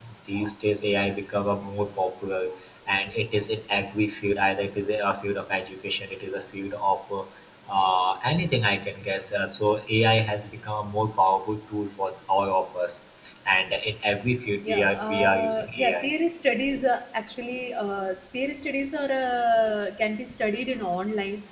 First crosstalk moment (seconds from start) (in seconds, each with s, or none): 14.6 s